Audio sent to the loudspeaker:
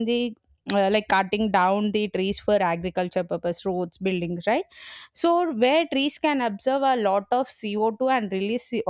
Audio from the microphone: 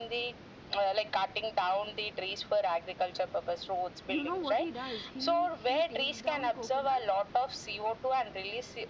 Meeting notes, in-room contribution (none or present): present